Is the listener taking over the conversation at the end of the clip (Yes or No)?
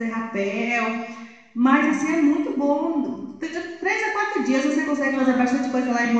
No